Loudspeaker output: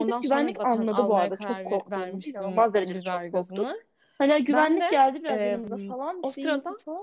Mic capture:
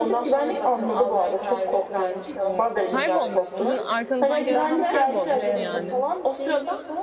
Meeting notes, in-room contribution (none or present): present